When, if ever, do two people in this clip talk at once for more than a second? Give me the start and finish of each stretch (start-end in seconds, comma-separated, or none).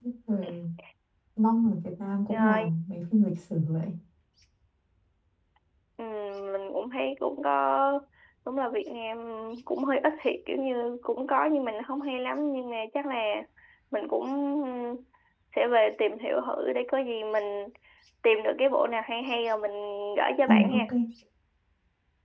none